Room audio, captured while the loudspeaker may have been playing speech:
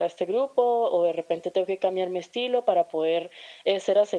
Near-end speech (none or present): none